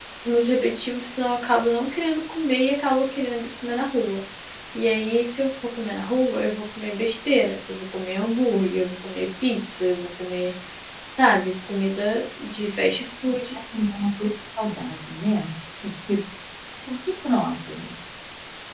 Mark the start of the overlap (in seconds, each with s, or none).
none